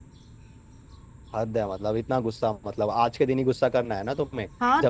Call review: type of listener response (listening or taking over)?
taking over